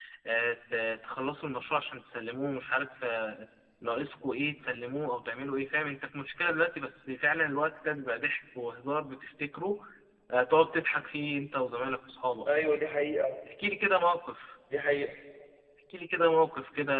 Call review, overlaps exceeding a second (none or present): none